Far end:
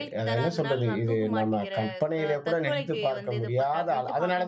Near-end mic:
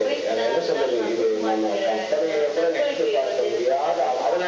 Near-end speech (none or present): none